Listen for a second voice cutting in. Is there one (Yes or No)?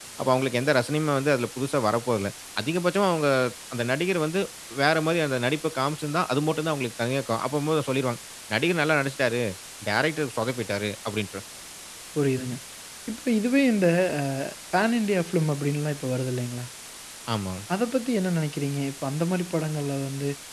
No